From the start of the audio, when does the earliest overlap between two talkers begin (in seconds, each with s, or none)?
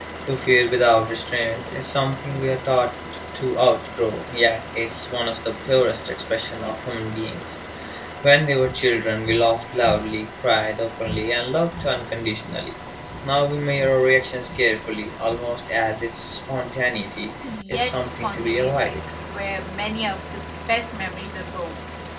17.7 s